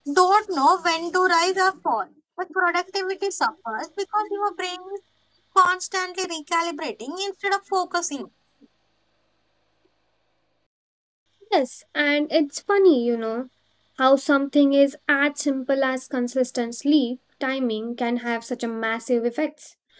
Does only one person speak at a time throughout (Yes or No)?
Yes